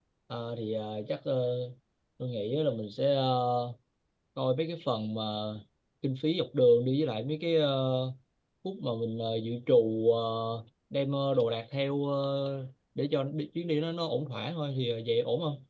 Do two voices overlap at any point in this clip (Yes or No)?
No